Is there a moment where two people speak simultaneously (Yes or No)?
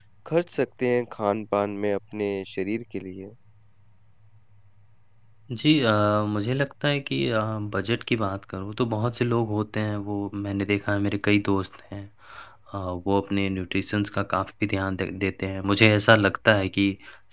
No